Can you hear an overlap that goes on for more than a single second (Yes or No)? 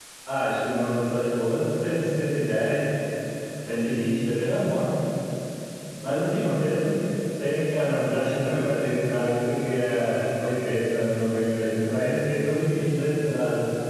No